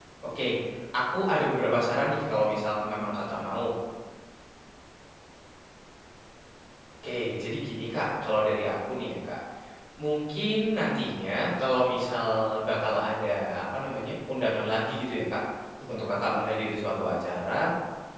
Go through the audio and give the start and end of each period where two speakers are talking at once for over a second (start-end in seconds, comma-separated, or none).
1.9-3.1